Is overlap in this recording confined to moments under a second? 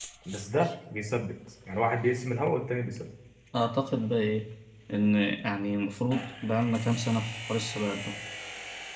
Yes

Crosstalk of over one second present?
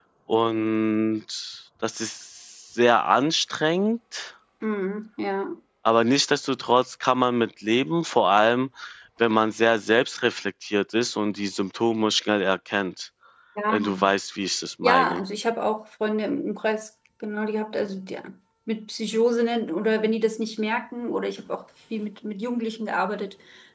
No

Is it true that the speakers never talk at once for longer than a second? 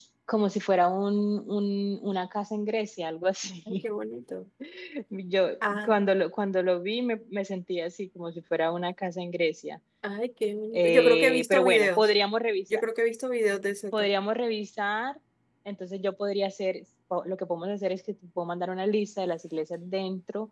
No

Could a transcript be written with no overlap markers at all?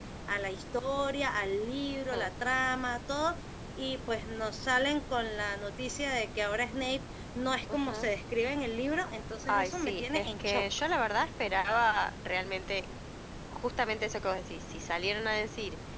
No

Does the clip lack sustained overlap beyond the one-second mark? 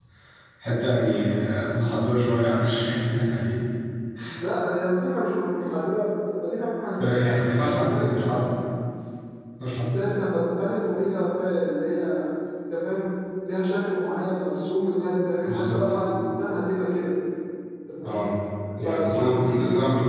No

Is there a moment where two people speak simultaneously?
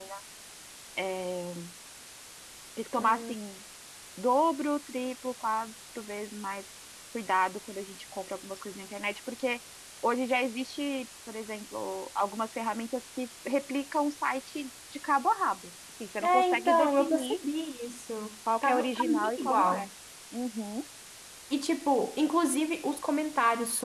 Yes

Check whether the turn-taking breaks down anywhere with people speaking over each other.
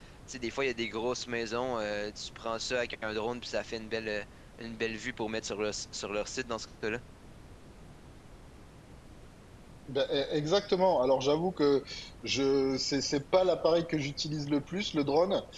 No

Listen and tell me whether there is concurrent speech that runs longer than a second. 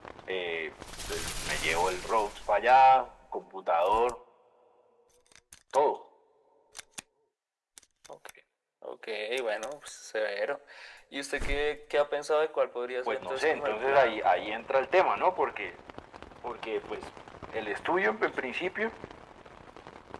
Yes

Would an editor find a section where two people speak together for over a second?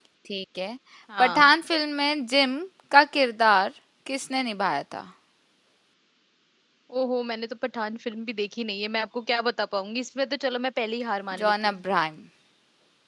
No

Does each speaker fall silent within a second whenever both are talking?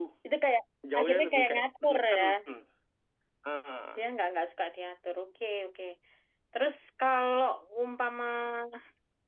No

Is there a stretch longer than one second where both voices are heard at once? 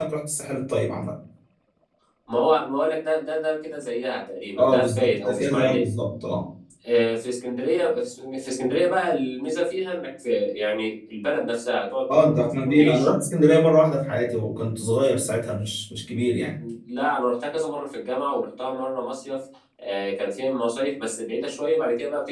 Yes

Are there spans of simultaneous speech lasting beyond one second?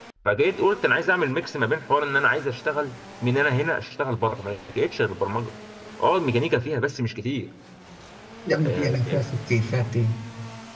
No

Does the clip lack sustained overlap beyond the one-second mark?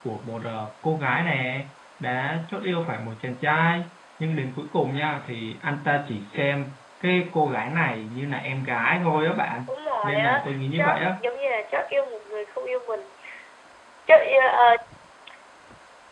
No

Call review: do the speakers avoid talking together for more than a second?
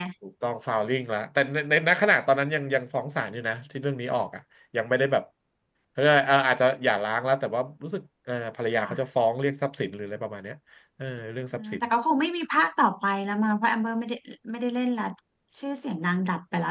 Yes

